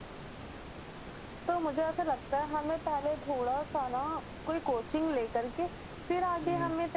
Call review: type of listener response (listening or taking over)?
listening